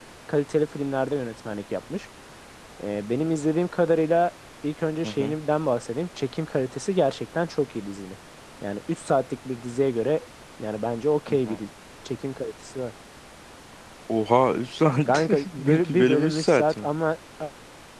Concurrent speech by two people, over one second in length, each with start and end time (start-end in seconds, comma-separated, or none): 15.1-16.9